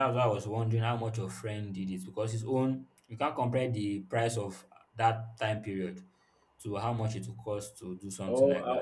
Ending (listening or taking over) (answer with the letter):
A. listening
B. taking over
B